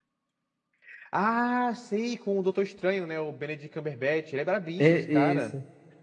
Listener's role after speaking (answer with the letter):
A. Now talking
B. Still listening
A